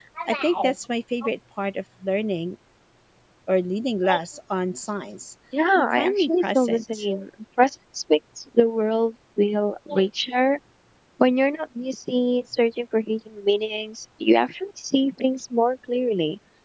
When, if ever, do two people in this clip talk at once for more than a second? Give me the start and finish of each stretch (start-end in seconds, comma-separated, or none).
5.8-7.0